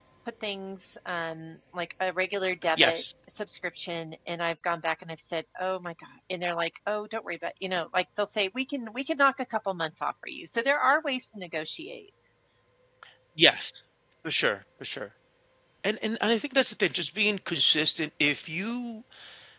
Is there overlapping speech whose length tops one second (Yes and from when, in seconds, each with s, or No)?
No